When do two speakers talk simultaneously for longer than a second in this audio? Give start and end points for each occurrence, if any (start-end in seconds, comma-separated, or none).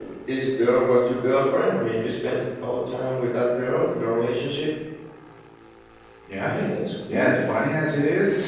none